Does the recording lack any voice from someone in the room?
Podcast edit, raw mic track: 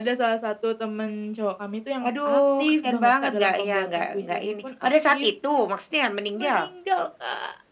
Yes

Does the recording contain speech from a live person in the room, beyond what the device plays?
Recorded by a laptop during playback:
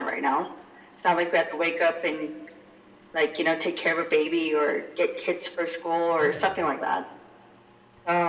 Yes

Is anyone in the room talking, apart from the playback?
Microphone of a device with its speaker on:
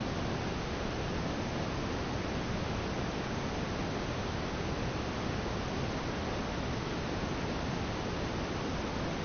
No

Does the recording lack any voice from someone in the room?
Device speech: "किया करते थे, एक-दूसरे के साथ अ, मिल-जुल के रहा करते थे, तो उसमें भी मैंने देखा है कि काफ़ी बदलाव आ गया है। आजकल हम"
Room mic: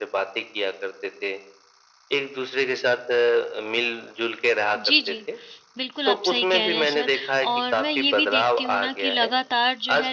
No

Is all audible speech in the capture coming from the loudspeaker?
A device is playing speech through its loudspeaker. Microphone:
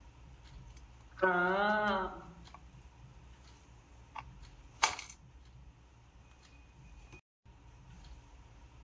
No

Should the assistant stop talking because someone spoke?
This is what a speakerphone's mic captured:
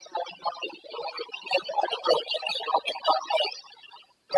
No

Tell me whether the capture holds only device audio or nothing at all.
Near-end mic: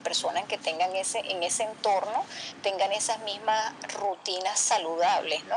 Yes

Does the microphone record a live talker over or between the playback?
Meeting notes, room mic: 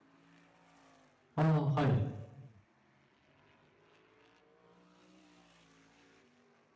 Yes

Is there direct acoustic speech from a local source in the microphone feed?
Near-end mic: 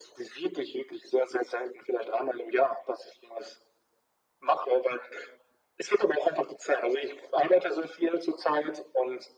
No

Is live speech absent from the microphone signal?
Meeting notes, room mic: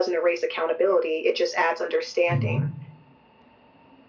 No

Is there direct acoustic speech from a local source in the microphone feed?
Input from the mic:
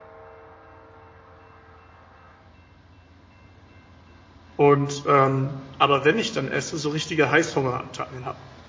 Yes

